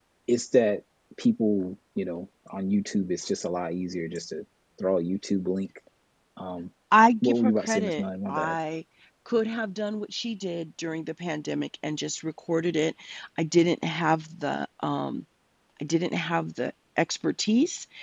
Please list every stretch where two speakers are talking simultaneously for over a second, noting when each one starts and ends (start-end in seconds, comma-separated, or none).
7.2-8.6